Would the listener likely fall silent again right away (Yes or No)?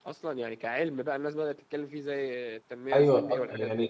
No